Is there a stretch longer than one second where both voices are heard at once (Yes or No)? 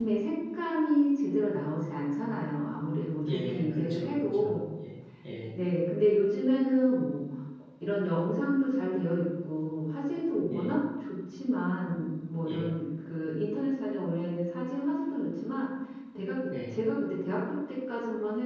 Yes